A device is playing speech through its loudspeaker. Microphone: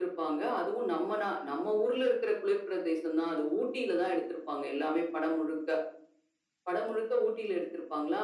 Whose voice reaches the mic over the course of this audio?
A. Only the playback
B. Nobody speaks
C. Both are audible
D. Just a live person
A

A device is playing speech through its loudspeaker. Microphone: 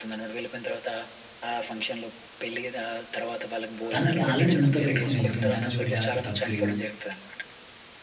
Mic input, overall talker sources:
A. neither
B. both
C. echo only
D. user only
B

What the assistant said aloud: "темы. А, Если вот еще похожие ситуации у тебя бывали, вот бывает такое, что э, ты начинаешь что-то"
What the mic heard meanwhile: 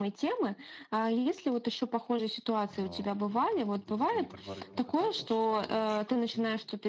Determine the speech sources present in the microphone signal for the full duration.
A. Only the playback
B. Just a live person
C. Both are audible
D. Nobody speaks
C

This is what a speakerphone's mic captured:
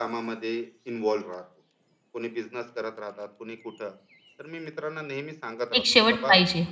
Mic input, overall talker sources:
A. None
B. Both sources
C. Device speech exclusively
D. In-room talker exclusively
B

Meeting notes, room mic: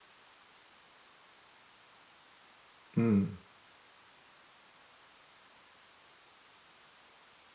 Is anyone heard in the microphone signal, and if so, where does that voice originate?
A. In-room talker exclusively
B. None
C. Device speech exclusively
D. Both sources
A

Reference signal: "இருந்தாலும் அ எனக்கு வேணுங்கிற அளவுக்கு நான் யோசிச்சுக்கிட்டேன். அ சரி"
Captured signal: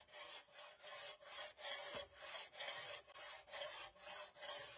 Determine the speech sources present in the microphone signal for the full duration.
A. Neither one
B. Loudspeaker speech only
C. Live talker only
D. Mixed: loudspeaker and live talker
A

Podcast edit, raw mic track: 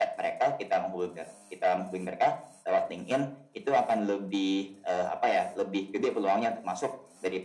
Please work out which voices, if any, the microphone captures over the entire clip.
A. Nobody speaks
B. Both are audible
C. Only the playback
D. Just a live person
C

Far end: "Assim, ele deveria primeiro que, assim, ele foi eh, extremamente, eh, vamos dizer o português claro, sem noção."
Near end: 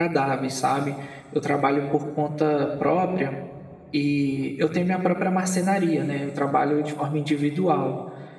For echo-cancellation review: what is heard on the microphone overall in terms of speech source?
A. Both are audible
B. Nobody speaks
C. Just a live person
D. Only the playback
C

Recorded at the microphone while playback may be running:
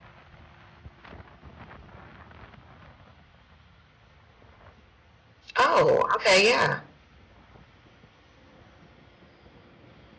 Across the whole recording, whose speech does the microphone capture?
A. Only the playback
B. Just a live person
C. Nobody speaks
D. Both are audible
B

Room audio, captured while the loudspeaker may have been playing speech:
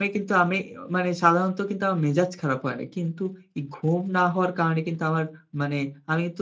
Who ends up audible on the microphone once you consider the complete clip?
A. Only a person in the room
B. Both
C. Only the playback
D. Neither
A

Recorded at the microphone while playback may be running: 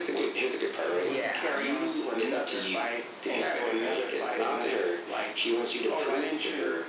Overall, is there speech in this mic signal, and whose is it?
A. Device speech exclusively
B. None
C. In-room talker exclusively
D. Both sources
D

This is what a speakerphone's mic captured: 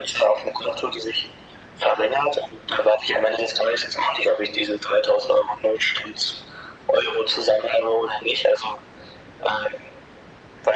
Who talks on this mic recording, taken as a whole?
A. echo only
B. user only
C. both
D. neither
A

